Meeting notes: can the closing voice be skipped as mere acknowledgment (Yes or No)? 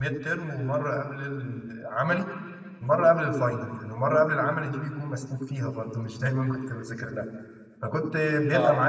Yes